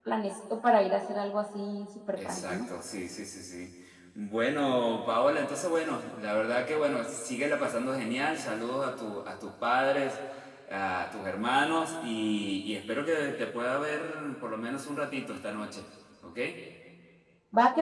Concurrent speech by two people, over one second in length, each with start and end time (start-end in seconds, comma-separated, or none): none